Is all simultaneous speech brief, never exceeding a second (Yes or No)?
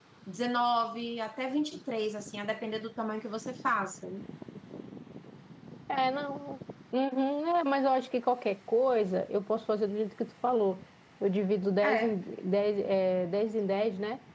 Yes